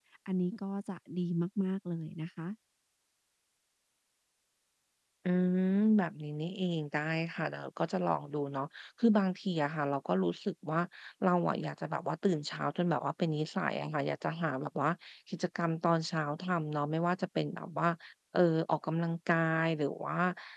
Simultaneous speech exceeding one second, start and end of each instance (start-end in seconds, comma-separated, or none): none